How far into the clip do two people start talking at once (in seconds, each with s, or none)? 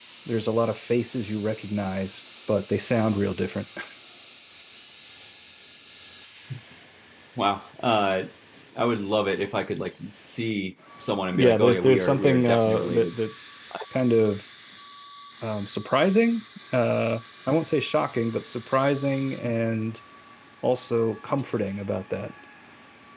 11.3 s